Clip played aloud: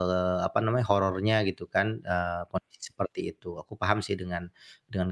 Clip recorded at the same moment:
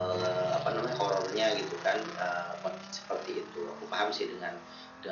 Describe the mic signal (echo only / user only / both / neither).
echo only